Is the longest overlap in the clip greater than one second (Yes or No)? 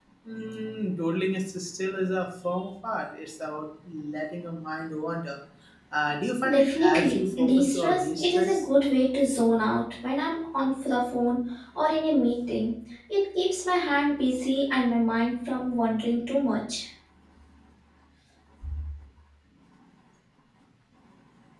Yes